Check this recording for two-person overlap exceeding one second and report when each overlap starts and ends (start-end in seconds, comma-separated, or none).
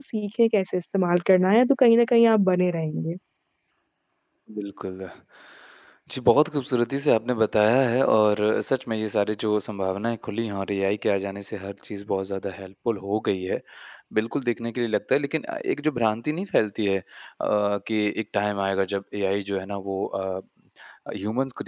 none